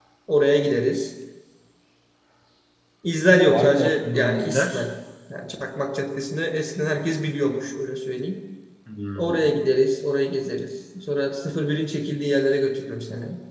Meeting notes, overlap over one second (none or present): present